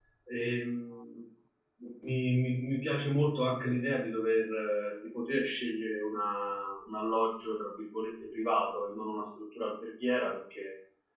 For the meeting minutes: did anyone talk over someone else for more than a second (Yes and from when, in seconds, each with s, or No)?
No